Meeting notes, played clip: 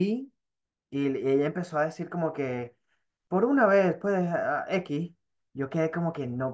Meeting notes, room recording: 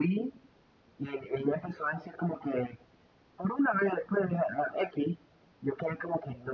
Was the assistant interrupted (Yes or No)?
No